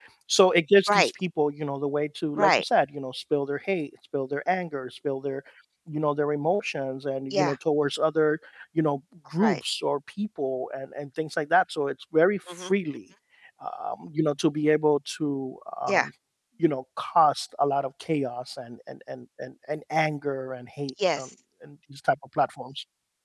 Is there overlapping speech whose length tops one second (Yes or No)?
No